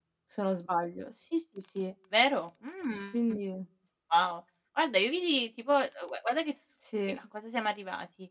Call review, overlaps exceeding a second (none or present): none